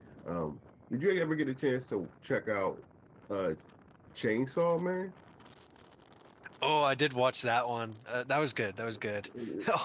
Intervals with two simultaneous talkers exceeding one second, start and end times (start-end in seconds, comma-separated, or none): none